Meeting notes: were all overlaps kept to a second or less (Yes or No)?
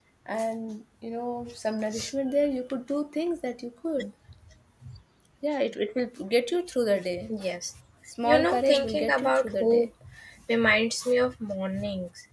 No